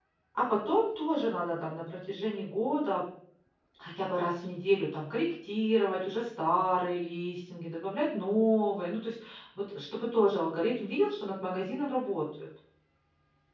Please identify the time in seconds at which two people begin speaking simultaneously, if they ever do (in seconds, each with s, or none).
none